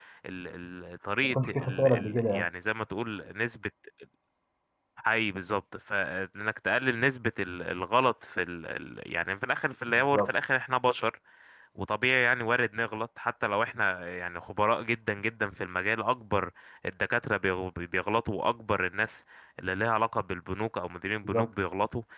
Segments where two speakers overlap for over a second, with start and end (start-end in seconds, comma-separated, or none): 1.2-2.4